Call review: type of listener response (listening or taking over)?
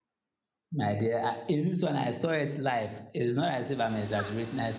listening